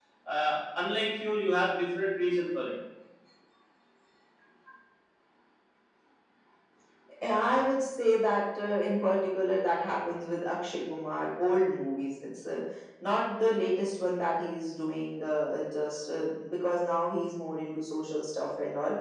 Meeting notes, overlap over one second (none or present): none